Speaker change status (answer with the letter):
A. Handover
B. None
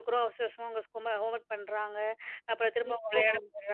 B